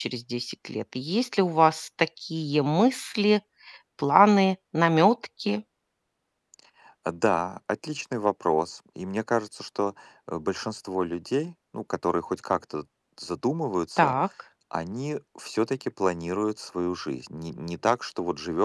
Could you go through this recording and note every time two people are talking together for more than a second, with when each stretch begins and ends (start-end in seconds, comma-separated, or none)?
none